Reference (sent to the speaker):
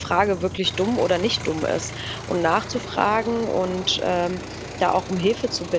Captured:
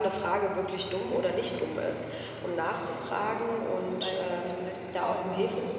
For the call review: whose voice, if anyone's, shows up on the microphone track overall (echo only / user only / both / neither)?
both